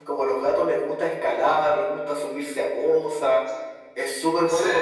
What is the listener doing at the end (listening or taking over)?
listening